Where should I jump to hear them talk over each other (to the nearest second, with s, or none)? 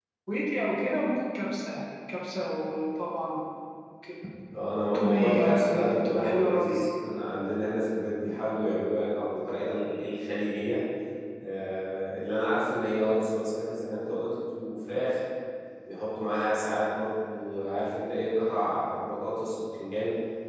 5 s